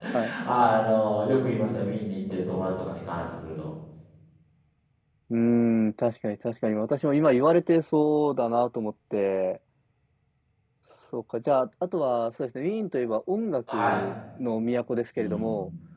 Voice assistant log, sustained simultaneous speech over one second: none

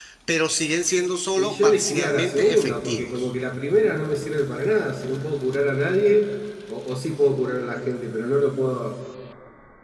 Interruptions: present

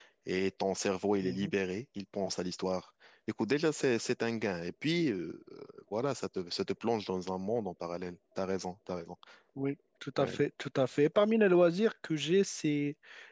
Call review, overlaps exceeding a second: none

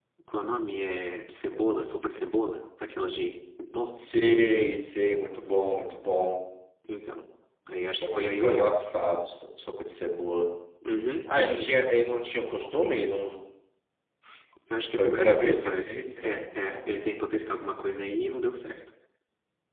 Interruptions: present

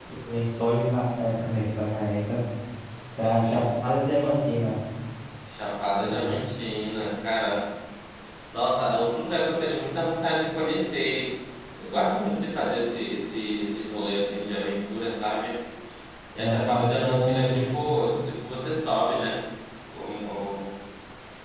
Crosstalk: present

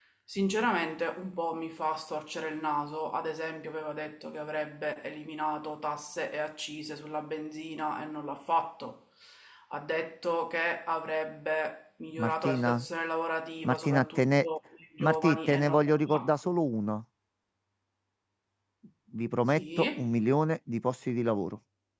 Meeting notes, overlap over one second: present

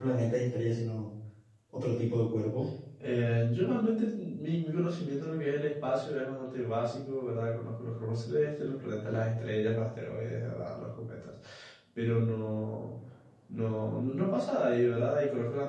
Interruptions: none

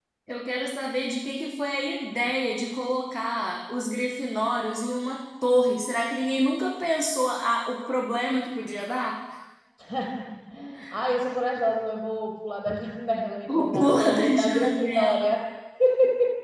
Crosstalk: present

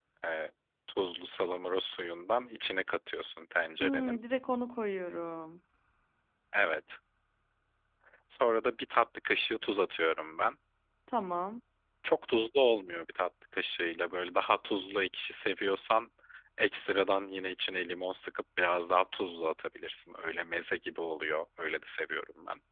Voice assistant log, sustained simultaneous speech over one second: none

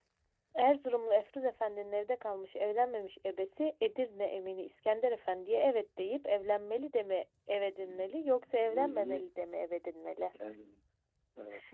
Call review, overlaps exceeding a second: present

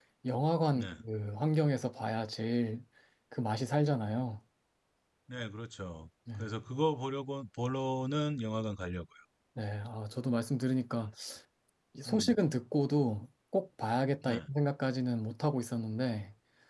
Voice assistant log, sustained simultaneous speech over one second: none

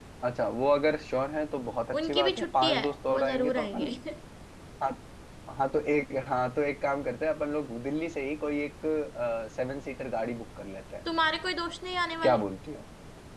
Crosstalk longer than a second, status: present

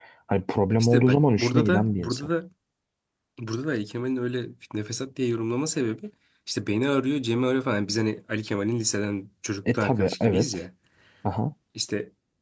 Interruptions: present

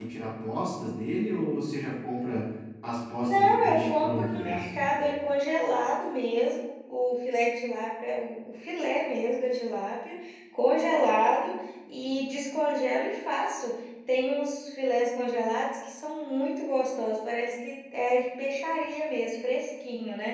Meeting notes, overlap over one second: present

